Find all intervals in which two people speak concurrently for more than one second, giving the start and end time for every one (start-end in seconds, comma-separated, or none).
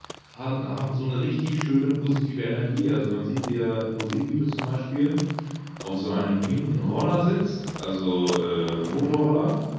none